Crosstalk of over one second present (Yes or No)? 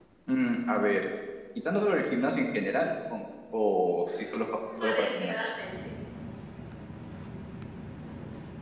Yes